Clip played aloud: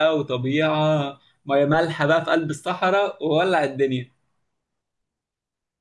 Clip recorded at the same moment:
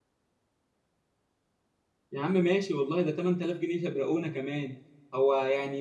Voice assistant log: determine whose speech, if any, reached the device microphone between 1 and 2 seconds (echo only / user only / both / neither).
neither